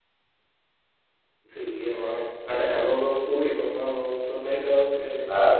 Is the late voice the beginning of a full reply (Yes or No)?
No